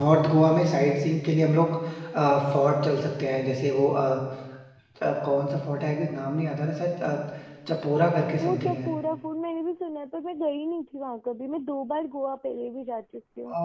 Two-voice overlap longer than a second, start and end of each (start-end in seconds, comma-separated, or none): none